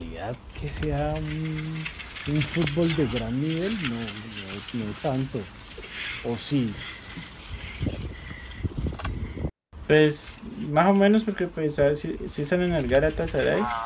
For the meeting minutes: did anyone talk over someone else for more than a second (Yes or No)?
No